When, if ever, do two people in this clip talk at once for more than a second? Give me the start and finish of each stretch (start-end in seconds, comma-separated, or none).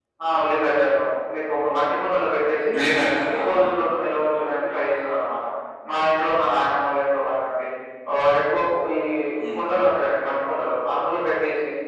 none